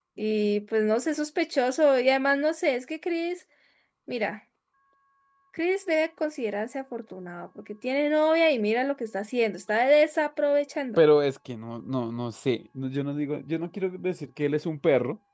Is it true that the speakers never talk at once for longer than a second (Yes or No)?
Yes